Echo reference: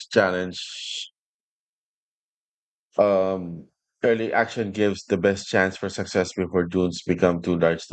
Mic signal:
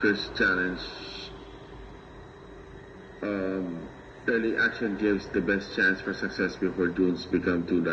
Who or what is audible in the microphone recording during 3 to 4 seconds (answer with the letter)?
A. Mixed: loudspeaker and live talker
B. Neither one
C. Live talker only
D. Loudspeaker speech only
D